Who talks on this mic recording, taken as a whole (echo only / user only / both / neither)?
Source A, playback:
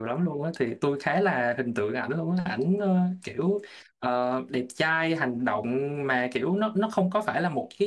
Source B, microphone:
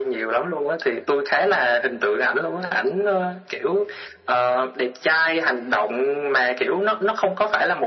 echo only